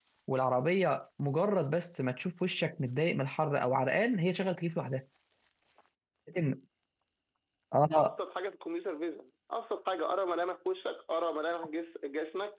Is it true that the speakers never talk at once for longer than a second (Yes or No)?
Yes